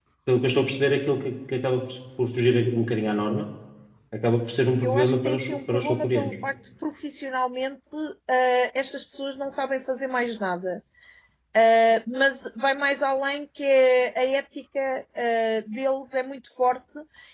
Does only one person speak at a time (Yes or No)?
No